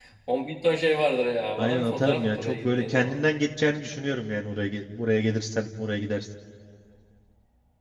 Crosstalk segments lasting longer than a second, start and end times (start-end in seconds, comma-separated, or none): 1.6-3.2